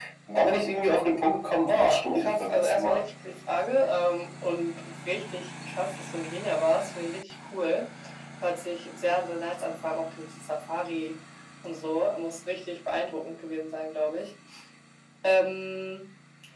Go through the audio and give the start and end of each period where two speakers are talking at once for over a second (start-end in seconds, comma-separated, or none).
1.7-3.0